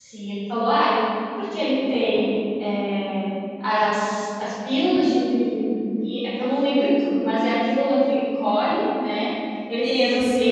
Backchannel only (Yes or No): Yes